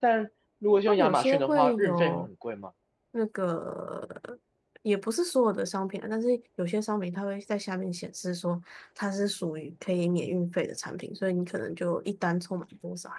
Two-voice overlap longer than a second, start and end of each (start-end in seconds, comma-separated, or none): 0.9-2.3